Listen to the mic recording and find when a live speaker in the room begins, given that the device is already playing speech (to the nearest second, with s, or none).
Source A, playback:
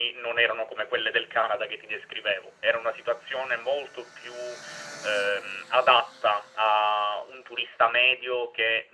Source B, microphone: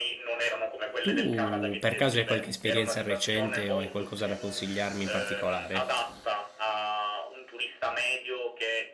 1 s